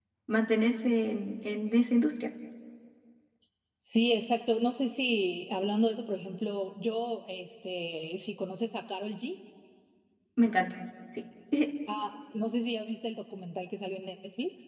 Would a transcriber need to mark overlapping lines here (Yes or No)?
No